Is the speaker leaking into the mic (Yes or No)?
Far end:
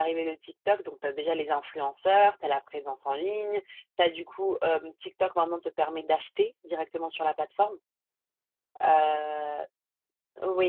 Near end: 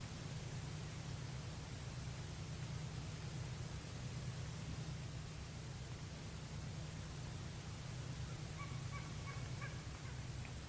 No